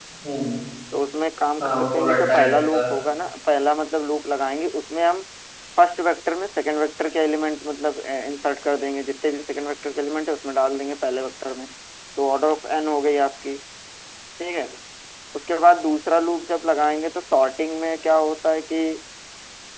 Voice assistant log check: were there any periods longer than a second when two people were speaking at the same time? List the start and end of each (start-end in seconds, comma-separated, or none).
1.6-2.8